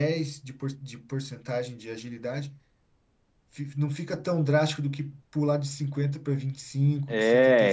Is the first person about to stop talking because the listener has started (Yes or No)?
Yes